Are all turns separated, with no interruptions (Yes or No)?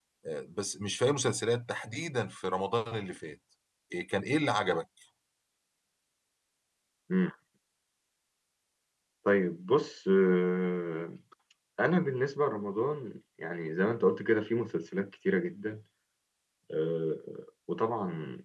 Yes